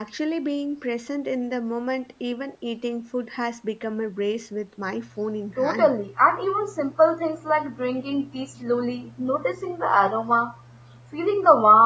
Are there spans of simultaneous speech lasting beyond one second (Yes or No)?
No